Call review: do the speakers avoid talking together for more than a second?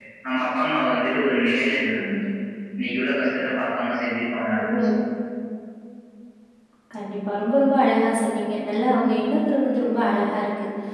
Yes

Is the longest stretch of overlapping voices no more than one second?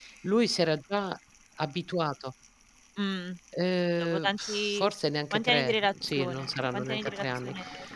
No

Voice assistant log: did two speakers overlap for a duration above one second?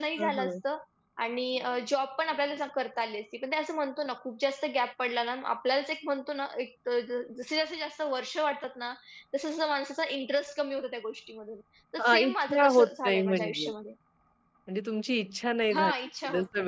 Yes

